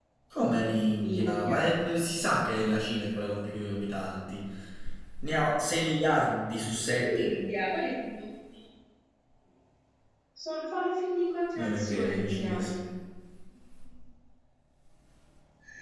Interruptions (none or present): present